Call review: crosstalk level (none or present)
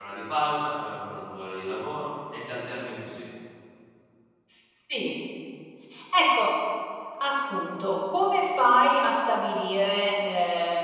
none